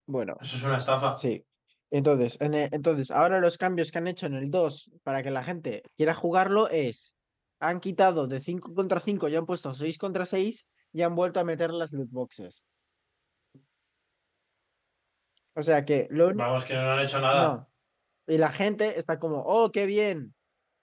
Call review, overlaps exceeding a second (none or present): none